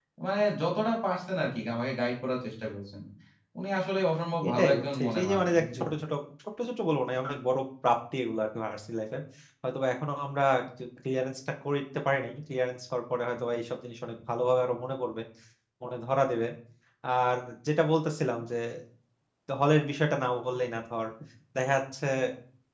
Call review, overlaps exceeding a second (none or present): present